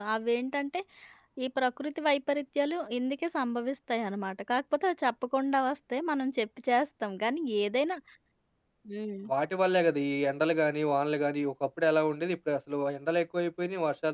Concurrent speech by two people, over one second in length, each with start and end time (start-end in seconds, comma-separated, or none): none